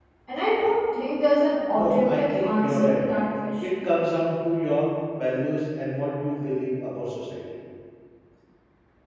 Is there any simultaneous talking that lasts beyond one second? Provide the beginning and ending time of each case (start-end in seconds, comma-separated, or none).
1.8-3.0